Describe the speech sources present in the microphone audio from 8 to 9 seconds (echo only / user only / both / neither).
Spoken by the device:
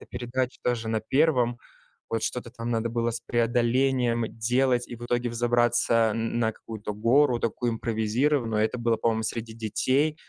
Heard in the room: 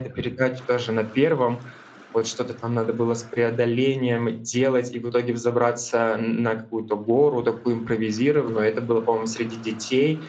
echo only